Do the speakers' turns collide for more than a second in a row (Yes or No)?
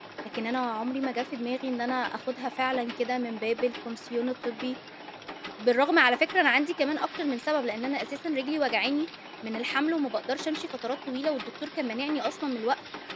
No